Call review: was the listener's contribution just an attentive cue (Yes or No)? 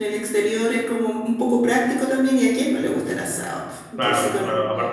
No